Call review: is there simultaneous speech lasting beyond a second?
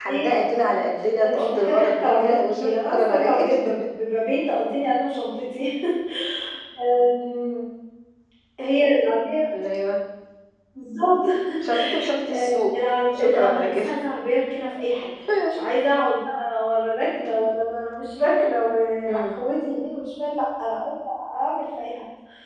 Yes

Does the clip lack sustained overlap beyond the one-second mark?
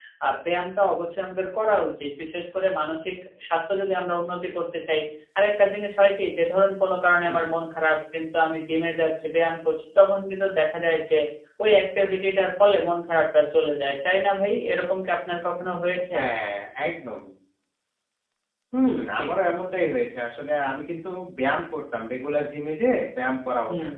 Yes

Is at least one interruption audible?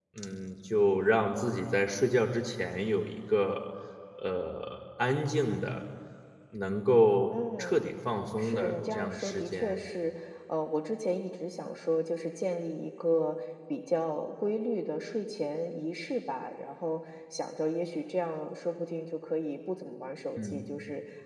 Yes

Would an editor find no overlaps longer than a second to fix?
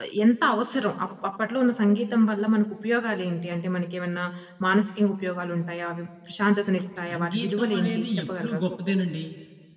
No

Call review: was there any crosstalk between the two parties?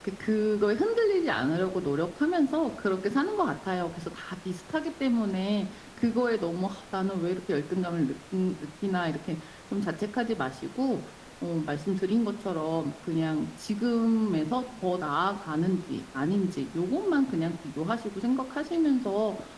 No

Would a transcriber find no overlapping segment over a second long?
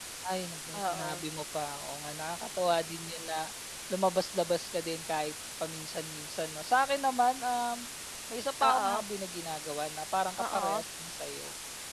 Yes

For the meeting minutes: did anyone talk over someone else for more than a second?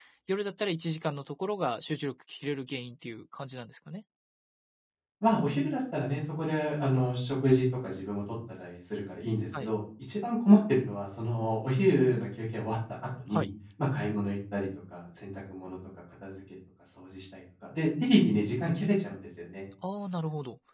No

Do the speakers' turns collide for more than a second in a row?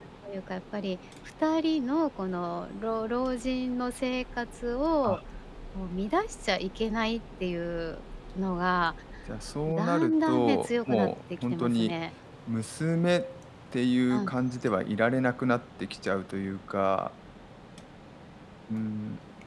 Yes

